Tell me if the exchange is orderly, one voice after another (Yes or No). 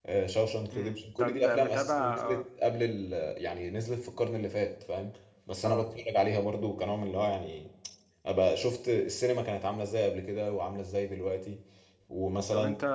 No